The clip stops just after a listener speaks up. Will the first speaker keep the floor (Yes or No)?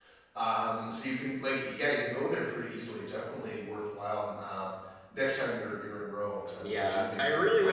No